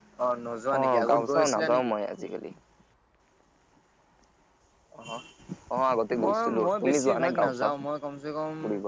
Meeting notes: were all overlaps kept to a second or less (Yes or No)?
No